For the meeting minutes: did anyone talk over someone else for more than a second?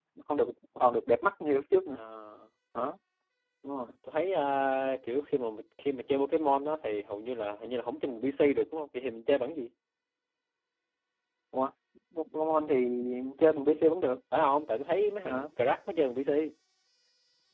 No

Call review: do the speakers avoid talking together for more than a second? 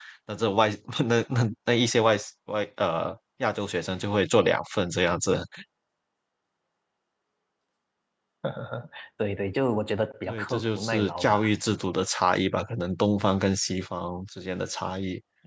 No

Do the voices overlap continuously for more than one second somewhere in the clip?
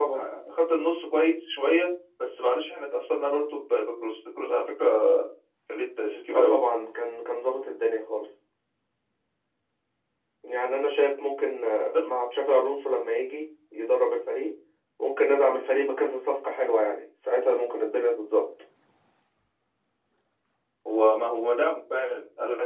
No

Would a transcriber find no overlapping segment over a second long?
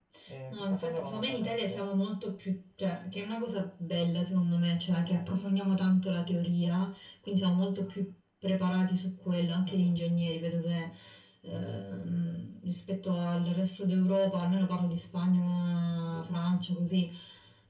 No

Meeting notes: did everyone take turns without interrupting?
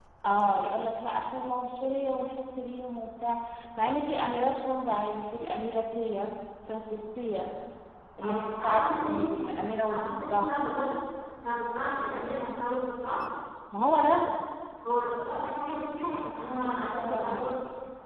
No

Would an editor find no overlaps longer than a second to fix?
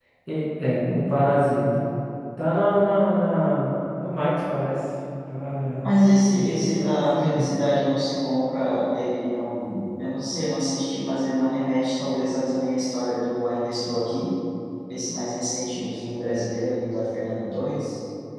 No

